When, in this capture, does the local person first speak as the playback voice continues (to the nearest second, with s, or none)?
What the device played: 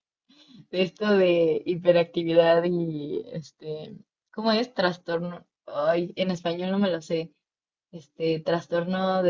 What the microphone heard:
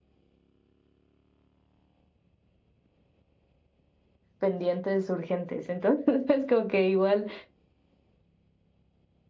4 s